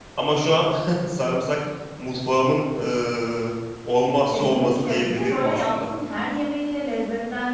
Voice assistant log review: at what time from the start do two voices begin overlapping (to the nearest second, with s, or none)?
4 s